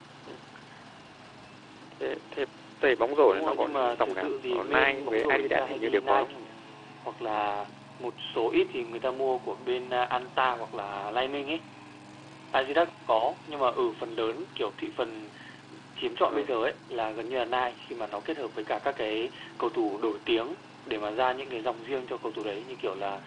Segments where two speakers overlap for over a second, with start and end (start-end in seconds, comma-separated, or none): 3.3-6.3